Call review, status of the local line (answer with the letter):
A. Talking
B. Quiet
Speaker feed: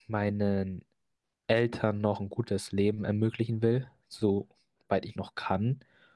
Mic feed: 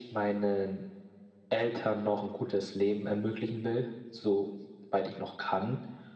B